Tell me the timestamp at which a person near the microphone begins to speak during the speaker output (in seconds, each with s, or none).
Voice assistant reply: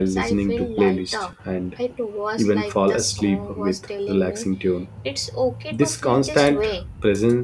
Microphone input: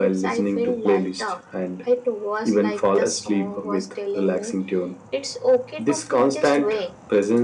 none